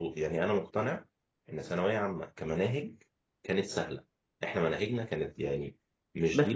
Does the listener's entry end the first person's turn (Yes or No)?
Yes